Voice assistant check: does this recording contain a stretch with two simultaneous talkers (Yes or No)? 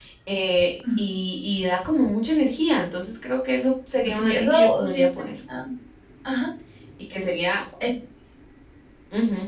Yes